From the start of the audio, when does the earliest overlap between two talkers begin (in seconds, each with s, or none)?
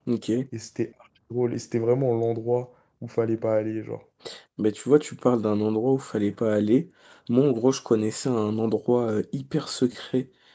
none